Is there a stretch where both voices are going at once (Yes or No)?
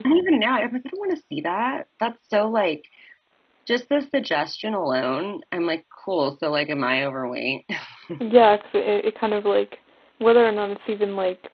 No